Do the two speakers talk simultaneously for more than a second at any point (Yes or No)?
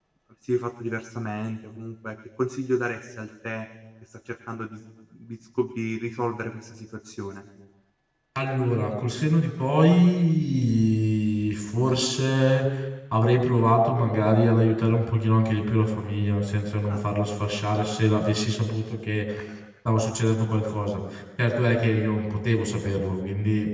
No